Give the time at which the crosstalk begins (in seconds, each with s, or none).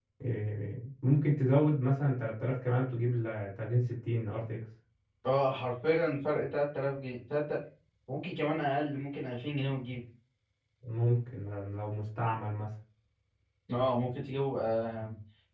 none